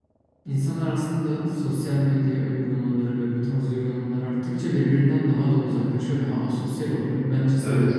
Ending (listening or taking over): taking over